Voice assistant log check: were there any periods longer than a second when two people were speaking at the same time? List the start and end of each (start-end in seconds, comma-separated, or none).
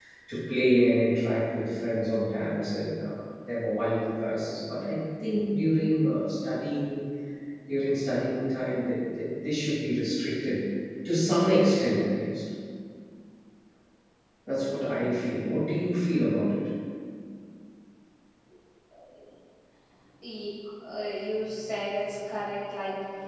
none